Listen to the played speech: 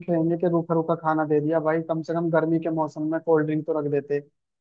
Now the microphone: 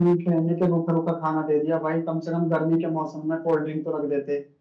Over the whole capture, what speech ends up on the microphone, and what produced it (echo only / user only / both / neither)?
echo only